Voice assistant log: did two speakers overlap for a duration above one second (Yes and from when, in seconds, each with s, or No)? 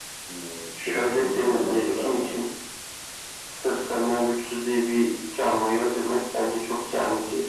Yes, from 0.9 s